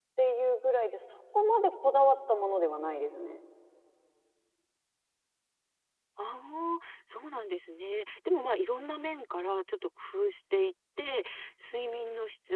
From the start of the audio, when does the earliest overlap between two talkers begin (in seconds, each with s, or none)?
none